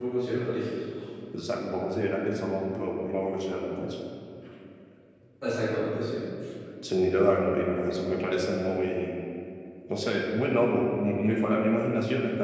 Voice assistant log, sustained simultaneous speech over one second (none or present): none